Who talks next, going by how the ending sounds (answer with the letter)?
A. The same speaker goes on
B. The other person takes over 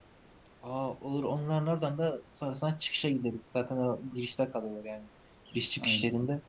A